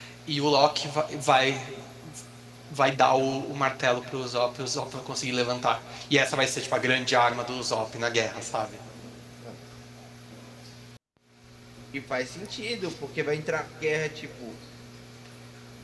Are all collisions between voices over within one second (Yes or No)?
Yes